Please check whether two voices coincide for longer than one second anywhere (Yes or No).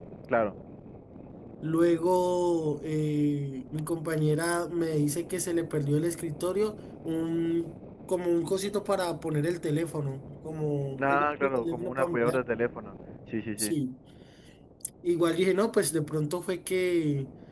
Yes